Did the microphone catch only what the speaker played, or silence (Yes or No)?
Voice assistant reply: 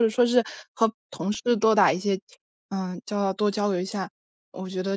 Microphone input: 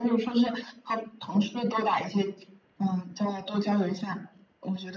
Yes